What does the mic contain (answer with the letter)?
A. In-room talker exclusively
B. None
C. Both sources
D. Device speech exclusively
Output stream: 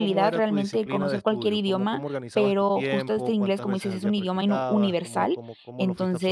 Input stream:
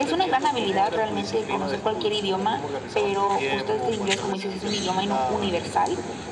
D